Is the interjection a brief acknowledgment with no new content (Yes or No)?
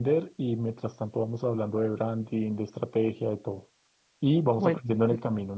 Yes